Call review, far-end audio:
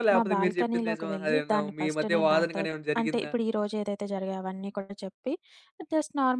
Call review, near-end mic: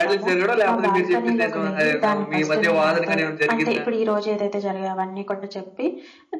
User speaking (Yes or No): No